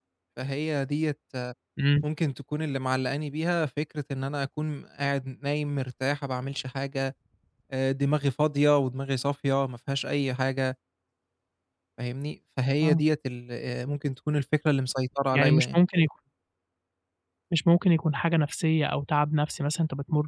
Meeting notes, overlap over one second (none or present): none